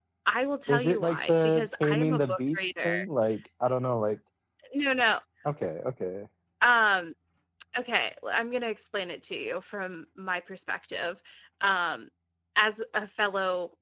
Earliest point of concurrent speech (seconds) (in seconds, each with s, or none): 0.7 s